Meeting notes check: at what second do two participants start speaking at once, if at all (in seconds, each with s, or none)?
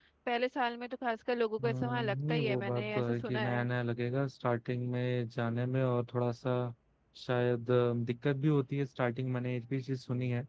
1.6 s